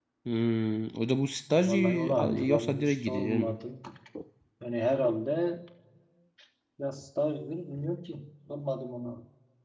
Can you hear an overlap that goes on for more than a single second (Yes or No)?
Yes